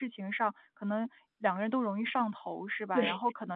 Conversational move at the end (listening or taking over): listening